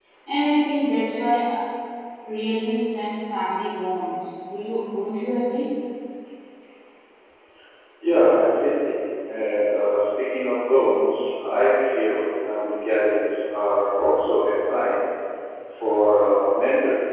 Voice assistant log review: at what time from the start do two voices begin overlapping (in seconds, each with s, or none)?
none